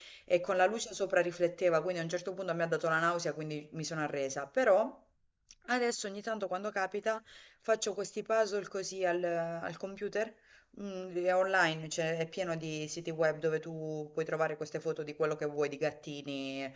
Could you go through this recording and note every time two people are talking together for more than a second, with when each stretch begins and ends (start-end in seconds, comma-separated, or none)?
none